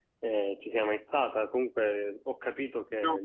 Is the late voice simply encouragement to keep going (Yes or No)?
Yes